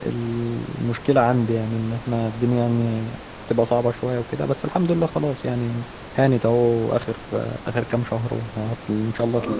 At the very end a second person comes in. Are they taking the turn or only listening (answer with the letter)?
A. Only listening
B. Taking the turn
B